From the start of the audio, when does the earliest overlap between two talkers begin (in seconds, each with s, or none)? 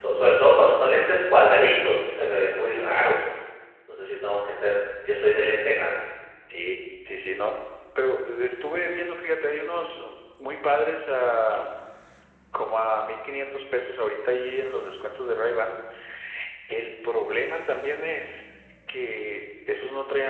none